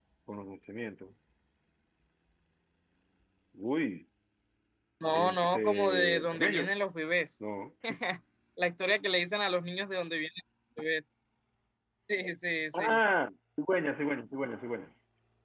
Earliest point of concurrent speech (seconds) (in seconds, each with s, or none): 5.1 s